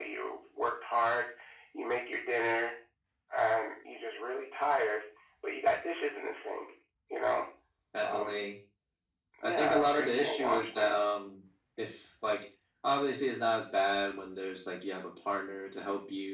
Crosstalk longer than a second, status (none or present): present